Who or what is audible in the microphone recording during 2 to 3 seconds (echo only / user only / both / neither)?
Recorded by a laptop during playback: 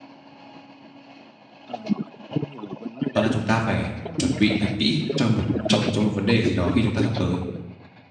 echo only